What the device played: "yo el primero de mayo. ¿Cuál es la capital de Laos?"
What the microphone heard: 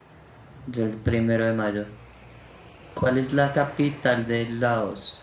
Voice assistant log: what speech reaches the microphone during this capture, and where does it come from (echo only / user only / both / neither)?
echo only